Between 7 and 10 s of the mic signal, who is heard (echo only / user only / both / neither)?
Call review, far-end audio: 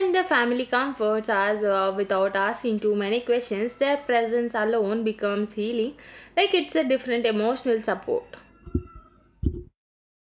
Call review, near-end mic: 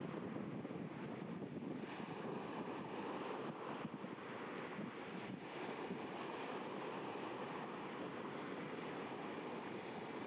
neither